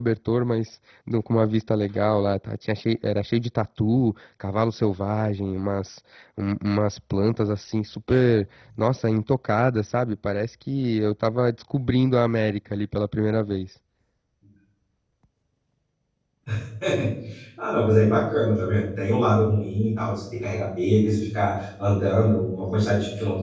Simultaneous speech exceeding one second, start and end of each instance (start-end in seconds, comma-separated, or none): none